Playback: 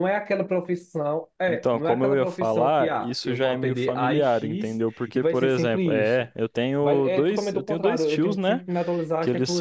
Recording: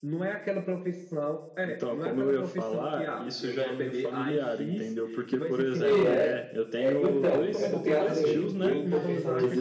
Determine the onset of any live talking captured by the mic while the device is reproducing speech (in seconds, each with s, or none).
5.7 s